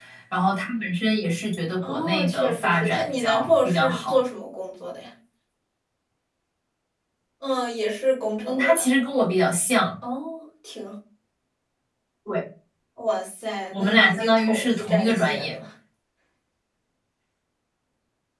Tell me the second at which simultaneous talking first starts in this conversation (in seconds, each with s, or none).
1.9 s